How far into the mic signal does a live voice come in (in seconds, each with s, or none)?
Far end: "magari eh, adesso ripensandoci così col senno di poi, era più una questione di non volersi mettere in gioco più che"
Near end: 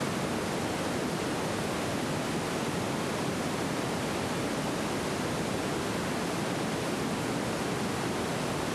none